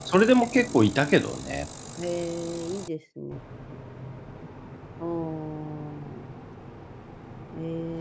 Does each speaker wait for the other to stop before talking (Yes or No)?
Yes